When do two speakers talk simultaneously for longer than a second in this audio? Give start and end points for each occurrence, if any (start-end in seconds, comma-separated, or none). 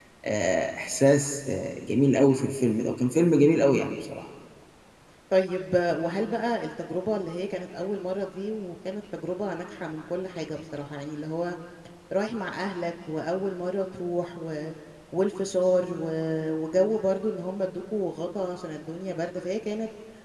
none